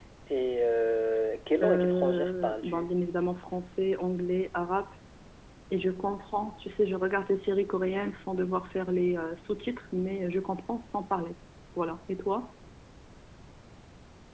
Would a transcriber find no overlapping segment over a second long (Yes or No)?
No